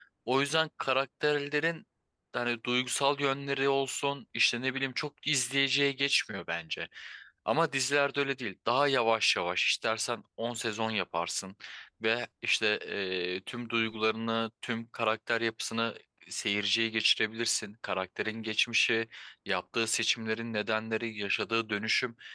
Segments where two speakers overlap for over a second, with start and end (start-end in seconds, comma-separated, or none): none